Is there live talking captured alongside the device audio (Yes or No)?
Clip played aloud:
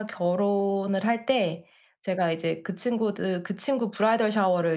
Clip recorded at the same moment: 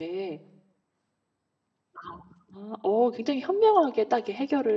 Yes